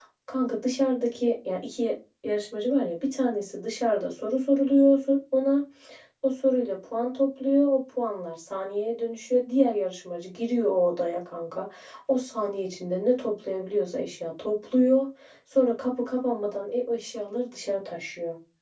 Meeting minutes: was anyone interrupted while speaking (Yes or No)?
No